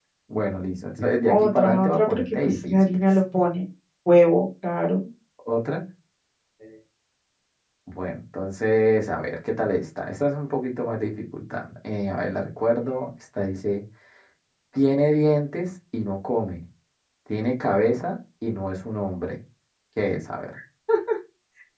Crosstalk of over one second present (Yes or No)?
Yes